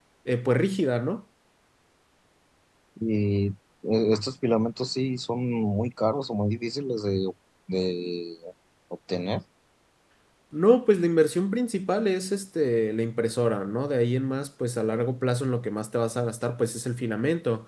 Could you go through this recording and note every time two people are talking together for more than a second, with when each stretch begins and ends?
none

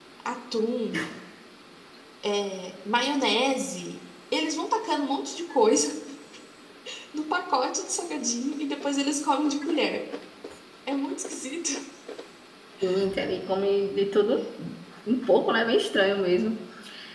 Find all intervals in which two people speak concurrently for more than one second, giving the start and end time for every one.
none

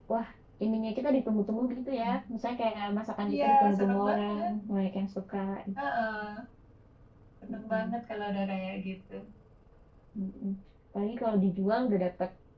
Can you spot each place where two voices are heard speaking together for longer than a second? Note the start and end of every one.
3.3-4.5

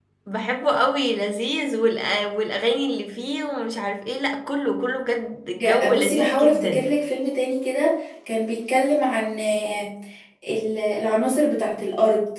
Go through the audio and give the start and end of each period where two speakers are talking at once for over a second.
5.6-6.9

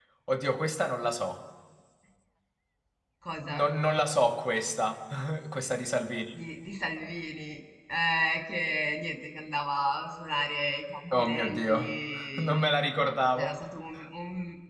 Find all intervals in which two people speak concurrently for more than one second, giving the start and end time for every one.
11.1-12.7

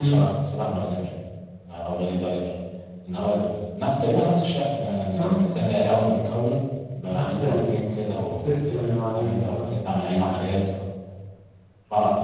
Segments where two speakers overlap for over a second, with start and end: 7.1-9.7

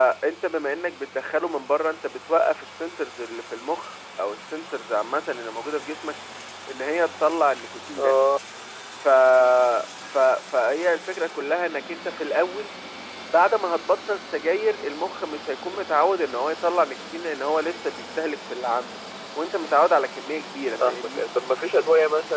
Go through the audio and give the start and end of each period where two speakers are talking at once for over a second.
none

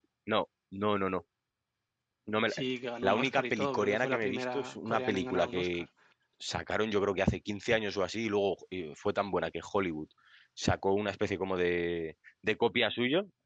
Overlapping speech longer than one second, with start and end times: 3.0-5.8

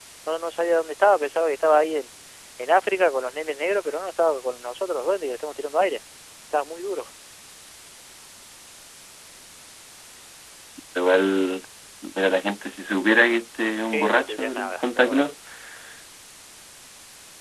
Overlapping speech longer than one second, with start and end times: 13.9-15.2

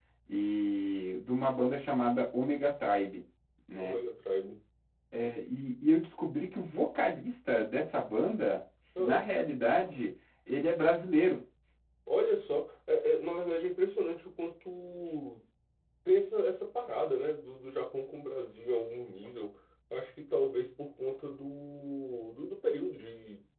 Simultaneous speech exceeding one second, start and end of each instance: none

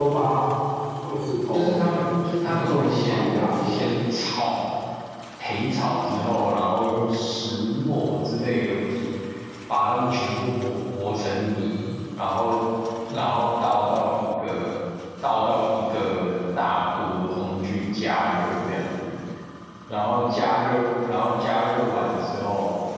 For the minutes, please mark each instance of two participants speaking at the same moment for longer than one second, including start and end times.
2.5-3.9

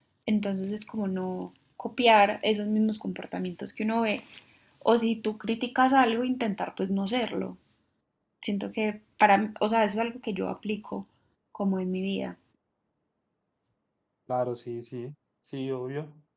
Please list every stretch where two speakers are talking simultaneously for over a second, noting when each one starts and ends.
none

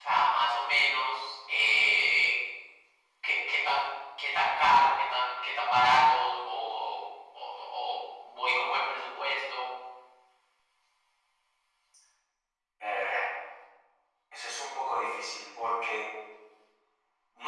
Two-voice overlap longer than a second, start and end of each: none

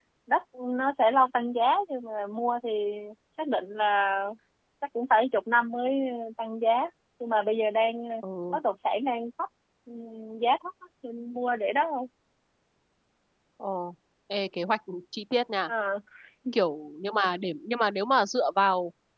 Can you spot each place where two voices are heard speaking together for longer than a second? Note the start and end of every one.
none

